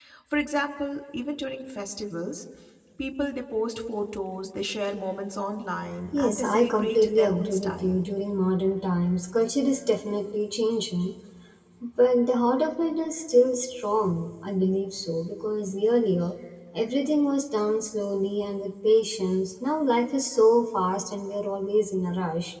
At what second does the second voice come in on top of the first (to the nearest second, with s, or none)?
6 s